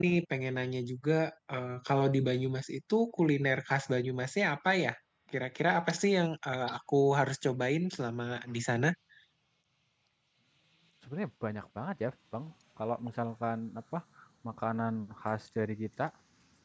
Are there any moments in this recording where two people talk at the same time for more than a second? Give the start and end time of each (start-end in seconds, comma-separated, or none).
none